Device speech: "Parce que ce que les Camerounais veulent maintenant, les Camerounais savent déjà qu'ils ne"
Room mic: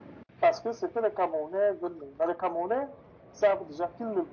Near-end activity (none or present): none